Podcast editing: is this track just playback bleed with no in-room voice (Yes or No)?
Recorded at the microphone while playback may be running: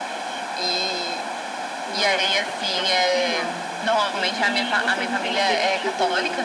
No